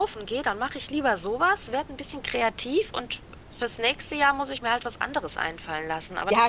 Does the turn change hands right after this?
Yes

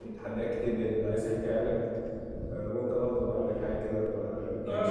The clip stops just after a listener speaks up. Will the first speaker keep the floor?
No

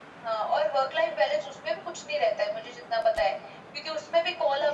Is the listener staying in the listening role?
Yes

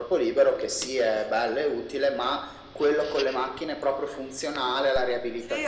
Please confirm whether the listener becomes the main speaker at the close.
Yes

